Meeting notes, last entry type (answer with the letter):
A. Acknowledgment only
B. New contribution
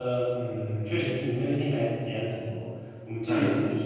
A